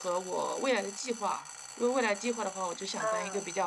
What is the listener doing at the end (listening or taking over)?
listening